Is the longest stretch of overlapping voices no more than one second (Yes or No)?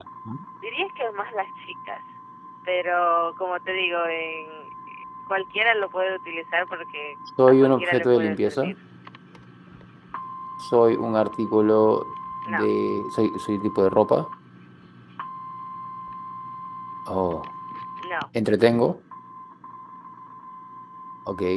No